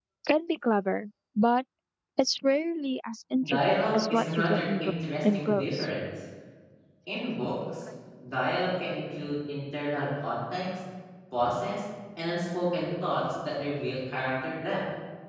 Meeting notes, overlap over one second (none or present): present